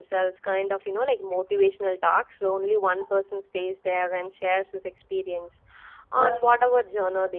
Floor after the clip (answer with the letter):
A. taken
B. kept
B